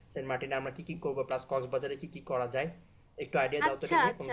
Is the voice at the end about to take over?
Yes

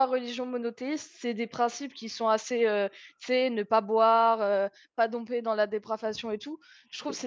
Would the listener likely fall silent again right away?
Yes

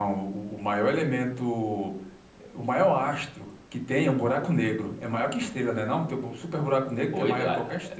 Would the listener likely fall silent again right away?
No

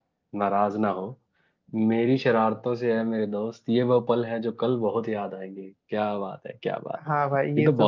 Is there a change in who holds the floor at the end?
Yes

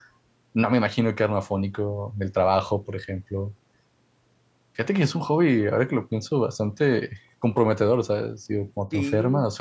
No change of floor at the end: Yes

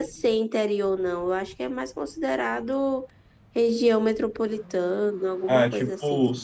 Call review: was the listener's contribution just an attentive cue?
No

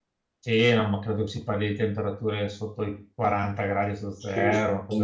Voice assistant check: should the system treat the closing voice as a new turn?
Yes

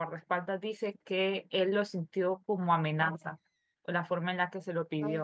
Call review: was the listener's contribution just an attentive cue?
No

